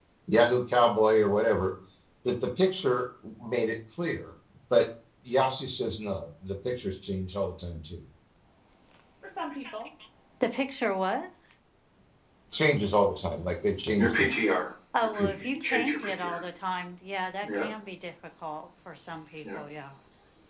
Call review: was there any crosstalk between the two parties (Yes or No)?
Yes